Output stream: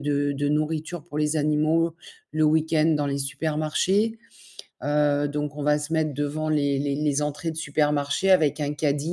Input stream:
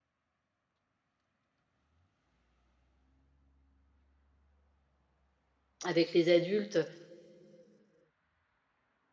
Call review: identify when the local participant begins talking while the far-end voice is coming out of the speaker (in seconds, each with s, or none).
5.8 s